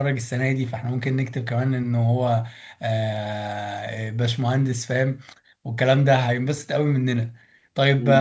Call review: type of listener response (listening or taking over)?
listening